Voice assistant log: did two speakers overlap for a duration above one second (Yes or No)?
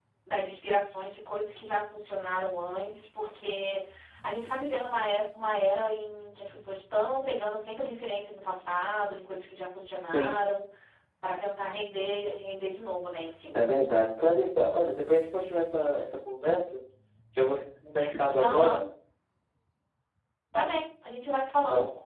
No